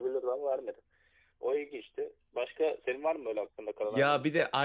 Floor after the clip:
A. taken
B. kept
A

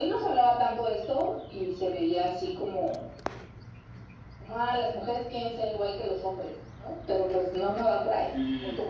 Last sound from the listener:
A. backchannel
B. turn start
B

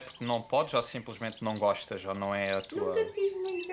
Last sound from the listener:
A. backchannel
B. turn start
B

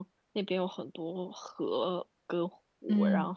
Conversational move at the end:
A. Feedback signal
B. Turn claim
A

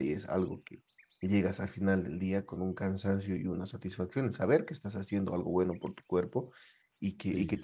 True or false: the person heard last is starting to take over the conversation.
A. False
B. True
A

